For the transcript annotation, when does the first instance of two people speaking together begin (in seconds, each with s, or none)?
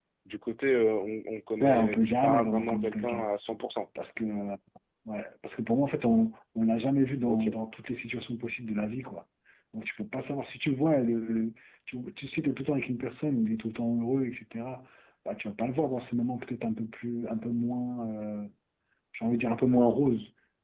1.6 s